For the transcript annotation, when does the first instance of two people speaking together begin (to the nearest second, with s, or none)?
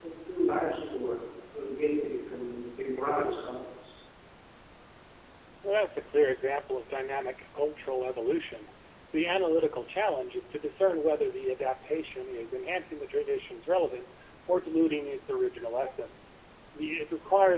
none